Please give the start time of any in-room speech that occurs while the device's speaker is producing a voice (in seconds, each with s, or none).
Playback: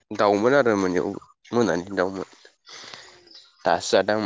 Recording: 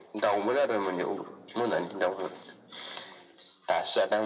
none